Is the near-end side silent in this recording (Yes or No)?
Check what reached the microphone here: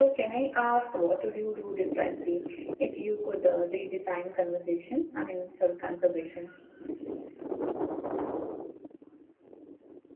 No